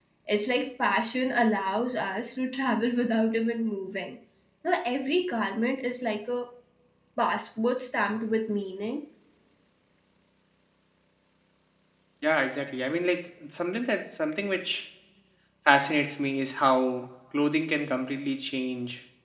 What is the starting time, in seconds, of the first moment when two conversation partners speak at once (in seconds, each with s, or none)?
none